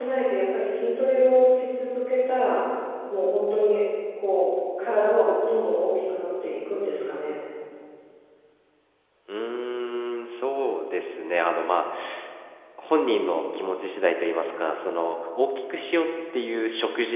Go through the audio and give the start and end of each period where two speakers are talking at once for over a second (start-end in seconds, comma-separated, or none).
none